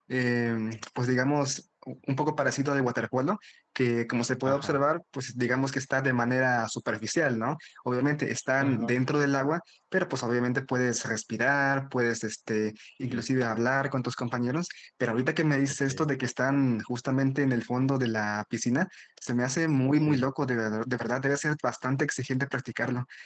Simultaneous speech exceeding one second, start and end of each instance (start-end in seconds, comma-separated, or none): none